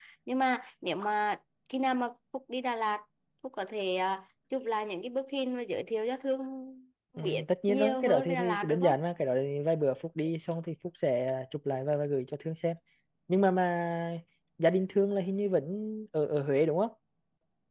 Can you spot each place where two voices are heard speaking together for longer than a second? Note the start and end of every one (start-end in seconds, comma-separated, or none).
7.2-9.0